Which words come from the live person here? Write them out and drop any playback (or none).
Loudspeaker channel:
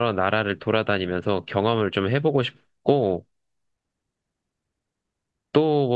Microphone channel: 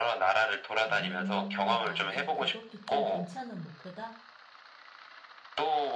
음, 맞아. 그것도 좀 괜찮은 목표다?